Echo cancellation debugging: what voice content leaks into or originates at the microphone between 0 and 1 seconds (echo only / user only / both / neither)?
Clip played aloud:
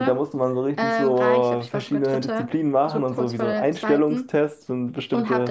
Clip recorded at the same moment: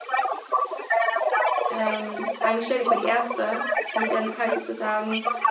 echo only